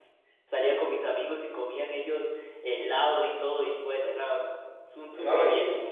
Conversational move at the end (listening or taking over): taking over